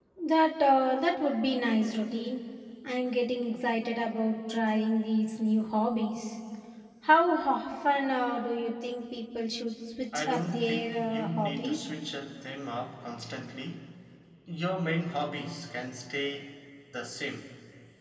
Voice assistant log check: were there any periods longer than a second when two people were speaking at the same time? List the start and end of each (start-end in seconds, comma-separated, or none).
10.2-11.8